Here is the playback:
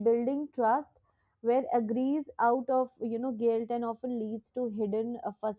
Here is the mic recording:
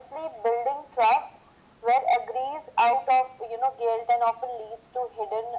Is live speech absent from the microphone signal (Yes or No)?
Yes